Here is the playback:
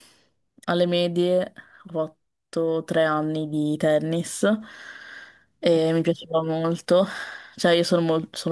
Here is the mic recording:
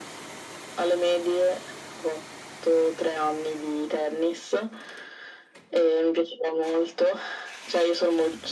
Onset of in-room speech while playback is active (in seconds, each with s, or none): none